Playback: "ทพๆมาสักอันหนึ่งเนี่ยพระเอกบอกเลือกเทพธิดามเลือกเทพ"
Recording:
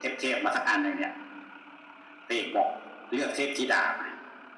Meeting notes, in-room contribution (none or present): none